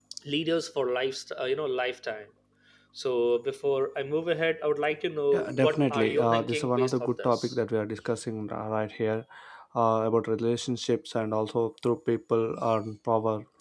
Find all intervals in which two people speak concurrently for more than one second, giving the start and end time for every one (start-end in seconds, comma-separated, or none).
5.3-7.5